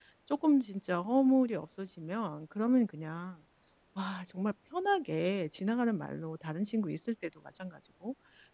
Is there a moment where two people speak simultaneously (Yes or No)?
No